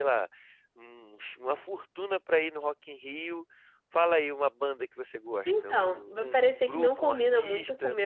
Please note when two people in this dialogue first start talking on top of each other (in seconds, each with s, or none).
5.5 s